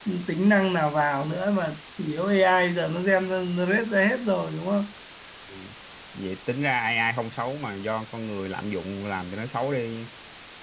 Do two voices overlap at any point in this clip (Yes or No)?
No